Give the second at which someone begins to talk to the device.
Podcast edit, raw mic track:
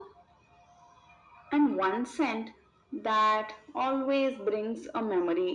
none

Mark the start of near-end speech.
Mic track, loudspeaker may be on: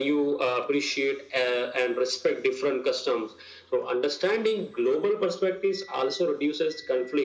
none

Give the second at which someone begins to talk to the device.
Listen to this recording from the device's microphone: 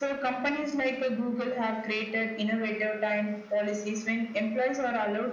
none

